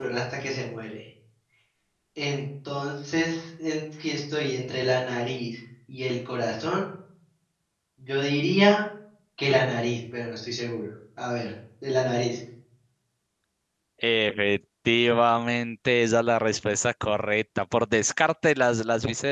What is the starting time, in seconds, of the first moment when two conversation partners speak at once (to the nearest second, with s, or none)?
none